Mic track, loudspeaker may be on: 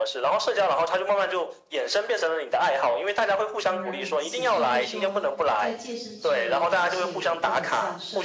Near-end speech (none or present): present